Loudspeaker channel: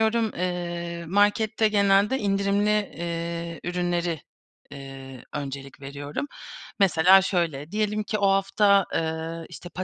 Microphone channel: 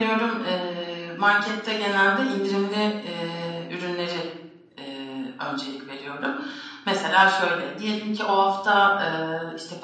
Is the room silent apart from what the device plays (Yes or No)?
Yes